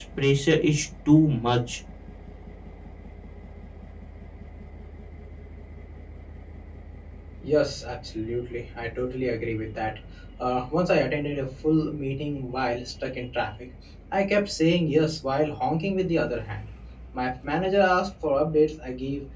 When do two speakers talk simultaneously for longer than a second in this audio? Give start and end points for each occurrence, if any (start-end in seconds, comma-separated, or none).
none